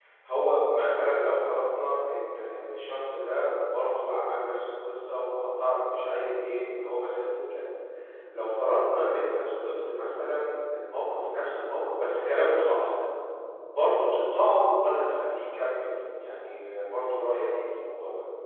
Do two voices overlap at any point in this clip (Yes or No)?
No